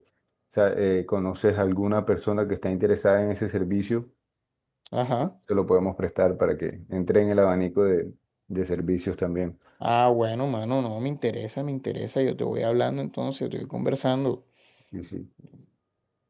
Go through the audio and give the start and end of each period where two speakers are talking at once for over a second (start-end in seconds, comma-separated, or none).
none